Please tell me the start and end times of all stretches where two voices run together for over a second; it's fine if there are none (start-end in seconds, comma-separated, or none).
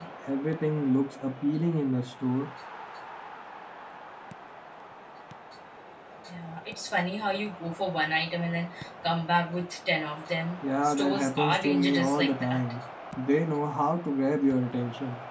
10.8-12.6